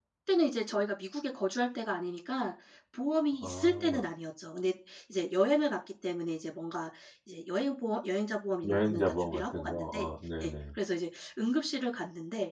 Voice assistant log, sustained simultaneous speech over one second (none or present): present